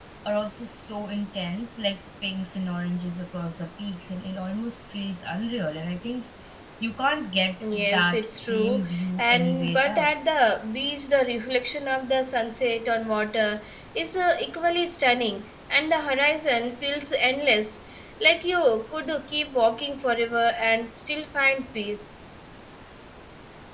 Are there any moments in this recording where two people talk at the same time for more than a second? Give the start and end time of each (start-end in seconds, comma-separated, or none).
7.7-10.4